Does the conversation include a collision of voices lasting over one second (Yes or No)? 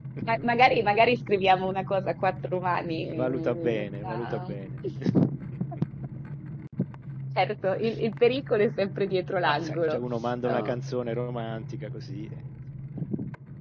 Yes